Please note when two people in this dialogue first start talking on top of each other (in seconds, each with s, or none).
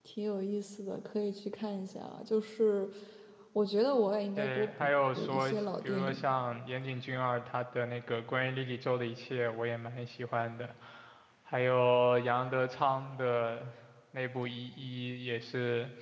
4.4 s